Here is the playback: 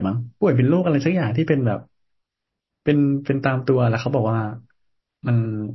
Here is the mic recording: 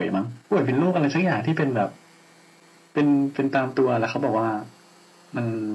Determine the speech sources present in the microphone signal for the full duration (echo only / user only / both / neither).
echo only